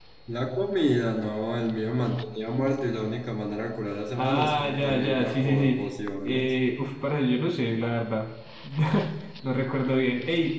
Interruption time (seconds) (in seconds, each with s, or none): 4.2 s